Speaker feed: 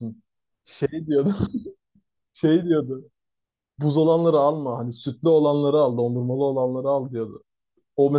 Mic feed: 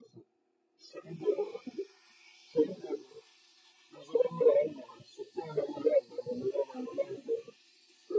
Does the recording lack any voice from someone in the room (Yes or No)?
Yes